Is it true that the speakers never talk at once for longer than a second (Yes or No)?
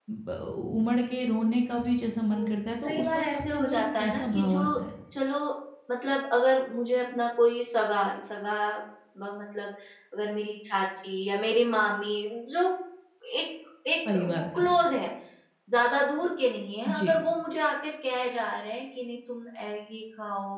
No